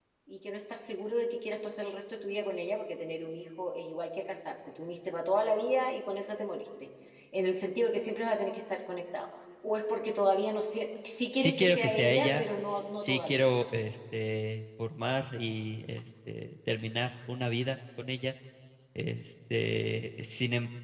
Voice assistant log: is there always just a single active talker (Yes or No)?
No